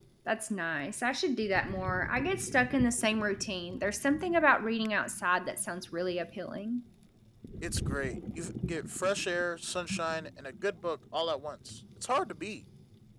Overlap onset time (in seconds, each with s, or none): none